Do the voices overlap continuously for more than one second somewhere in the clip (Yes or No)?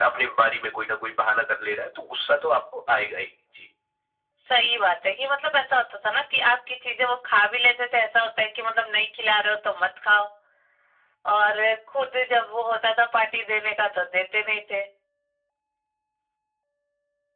No